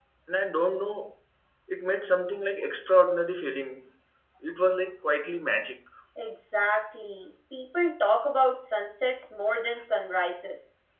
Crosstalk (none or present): none